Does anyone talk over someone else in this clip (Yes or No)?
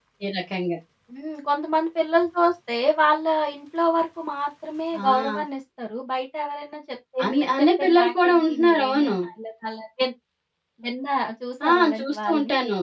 Yes